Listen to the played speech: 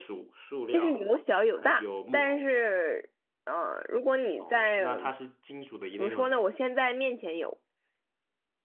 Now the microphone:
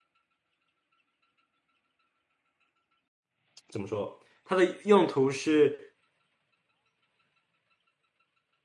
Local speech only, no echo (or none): 怎么说？它的用途是